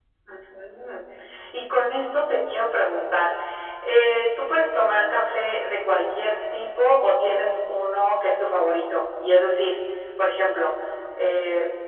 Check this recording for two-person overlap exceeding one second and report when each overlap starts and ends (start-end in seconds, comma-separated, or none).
none